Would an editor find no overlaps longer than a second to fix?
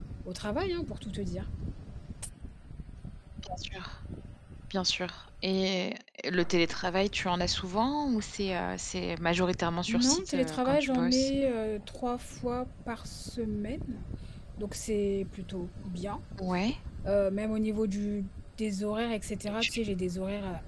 No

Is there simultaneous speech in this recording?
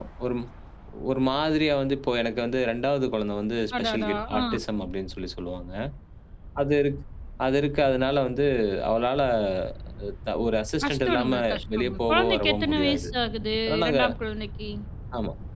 Yes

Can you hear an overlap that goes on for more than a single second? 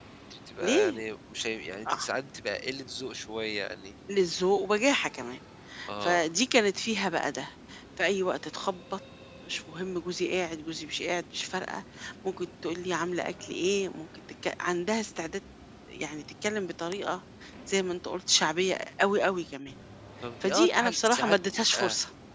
Yes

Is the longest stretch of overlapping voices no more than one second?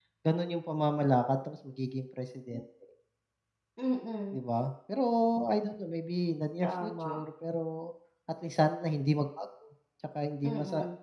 Yes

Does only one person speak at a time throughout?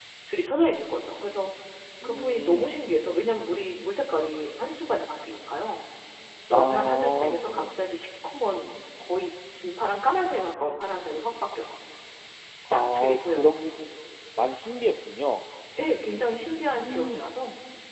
No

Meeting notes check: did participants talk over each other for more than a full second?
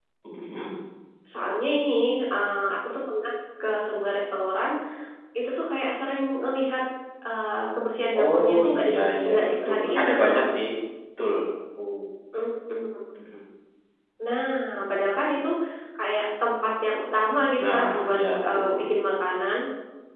Yes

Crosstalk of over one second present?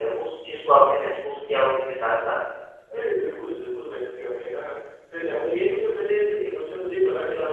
No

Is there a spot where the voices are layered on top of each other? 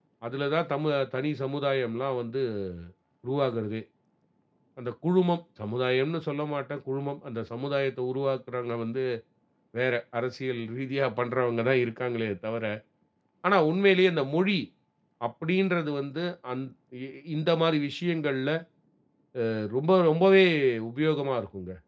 No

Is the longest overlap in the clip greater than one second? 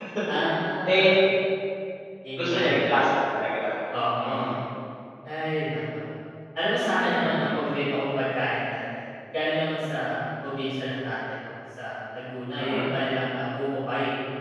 No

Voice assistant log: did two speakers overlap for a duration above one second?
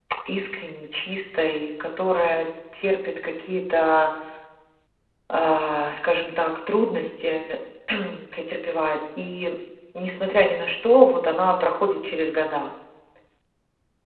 No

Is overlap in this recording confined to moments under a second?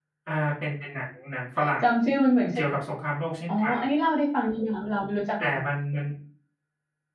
Yes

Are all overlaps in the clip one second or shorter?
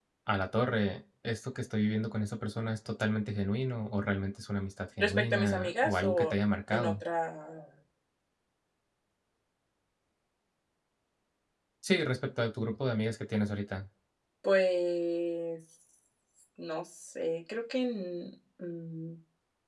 No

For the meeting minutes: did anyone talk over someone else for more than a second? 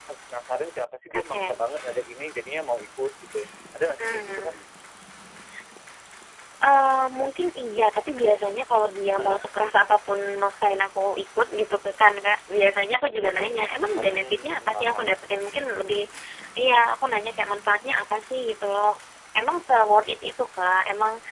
Yes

